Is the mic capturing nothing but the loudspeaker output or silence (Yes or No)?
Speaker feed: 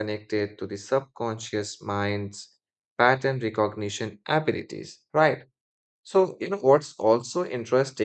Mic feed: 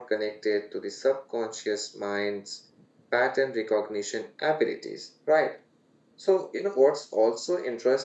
Yes